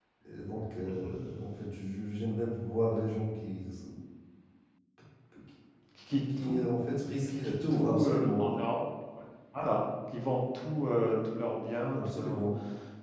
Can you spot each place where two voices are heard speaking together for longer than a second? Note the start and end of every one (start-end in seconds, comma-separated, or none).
7.3-8.6